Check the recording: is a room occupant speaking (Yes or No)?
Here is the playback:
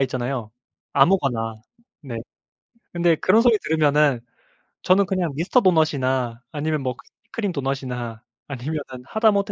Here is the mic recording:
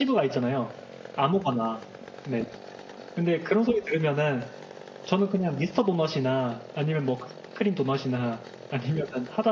No